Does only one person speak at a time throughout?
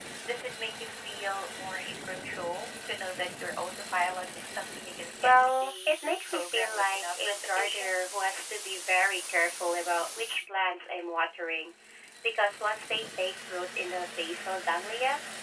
No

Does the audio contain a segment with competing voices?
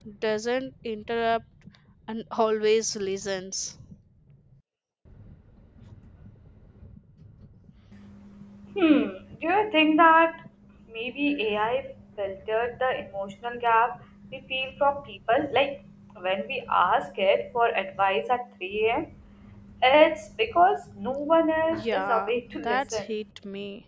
Yes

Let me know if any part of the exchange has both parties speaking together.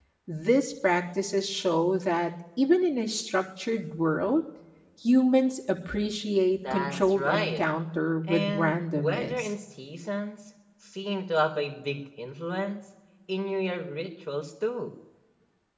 Yes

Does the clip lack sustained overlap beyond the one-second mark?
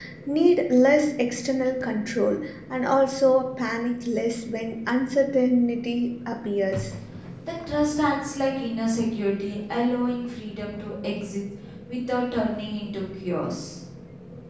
Yes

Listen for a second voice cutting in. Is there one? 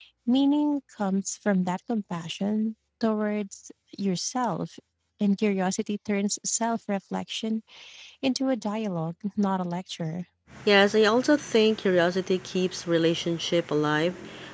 No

